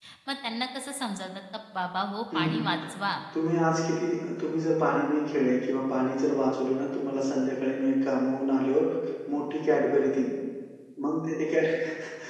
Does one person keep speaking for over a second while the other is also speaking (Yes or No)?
No